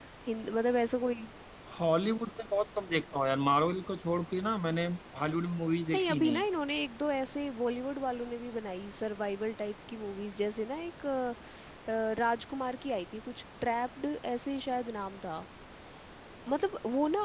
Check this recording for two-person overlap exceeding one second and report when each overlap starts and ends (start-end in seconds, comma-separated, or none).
none